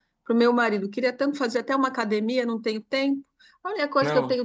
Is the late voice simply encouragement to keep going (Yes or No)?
Yes